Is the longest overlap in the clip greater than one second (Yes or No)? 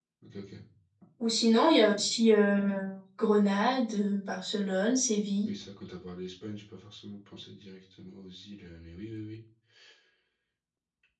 No